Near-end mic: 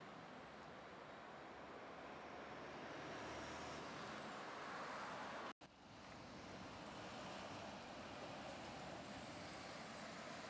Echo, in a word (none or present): none